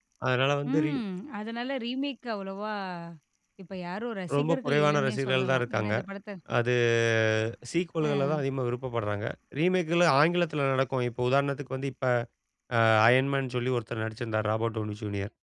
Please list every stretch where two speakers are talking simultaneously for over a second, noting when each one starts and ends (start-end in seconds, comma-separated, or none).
4.3-5.9